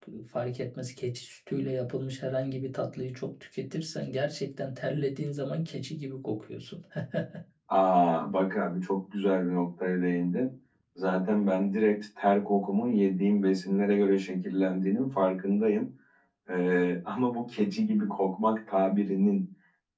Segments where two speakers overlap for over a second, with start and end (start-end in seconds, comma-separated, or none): none